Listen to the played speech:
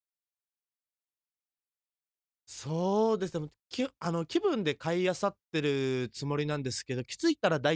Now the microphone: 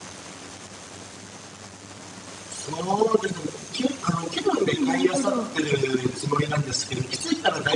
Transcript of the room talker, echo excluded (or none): うん。なるほど。